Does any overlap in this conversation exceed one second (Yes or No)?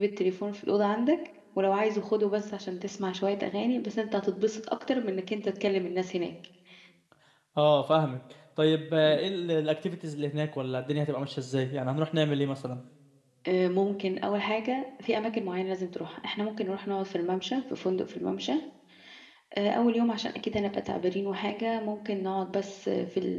No